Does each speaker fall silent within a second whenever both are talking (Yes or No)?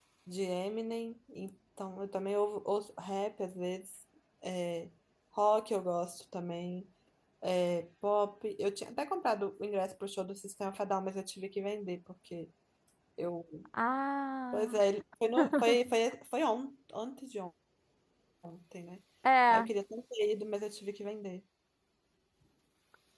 Yes